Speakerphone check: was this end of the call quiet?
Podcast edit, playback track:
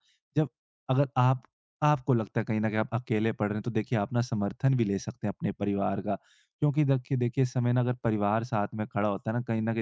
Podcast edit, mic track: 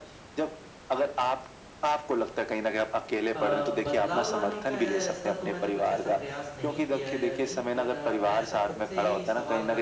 No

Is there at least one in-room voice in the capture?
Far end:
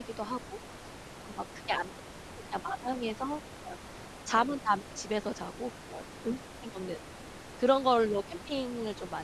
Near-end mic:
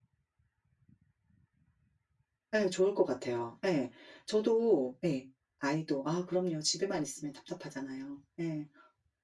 Yes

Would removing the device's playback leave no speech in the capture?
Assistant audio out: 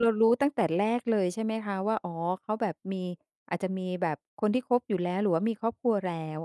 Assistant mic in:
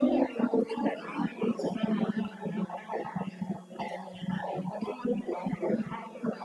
Yes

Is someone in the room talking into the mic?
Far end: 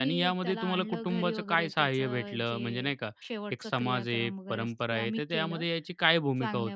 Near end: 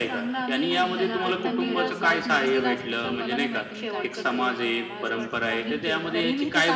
Yes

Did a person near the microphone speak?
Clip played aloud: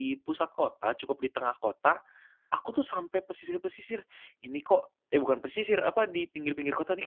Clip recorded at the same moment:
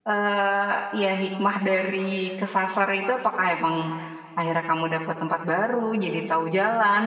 Yes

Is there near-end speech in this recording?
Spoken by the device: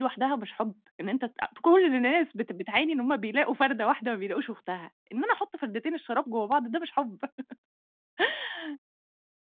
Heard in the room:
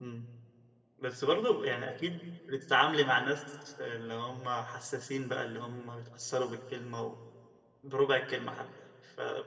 Yes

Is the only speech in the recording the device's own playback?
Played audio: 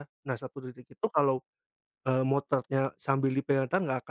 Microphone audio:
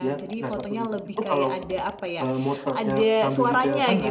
No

